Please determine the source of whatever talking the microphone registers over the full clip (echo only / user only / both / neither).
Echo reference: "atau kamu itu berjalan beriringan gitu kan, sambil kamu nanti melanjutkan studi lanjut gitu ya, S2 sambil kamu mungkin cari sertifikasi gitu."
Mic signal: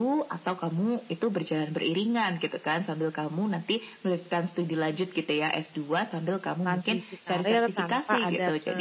both